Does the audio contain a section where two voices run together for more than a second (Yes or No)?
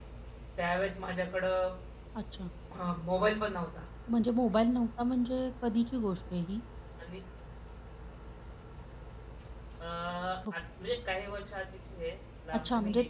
No